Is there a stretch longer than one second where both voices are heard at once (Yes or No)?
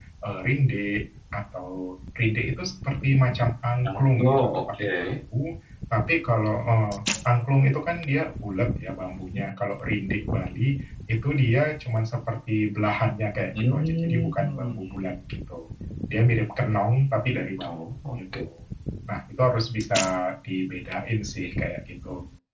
Yes